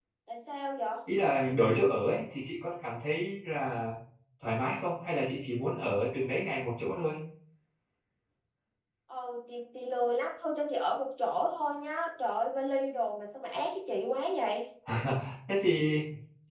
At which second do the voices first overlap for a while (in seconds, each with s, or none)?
none